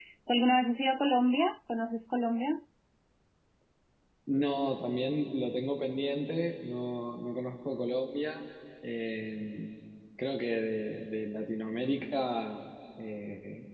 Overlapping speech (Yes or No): No